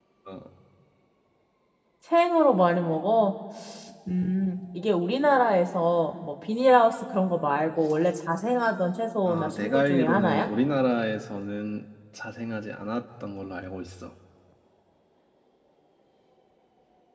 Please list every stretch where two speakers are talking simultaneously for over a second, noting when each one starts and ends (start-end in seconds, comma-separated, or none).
9.2-10.5